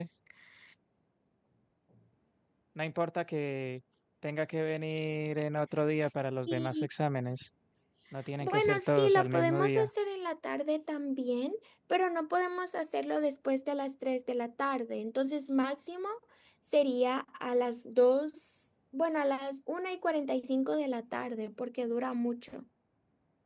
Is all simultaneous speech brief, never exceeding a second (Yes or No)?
No